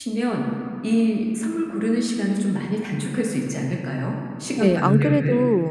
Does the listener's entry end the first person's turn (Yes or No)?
Yes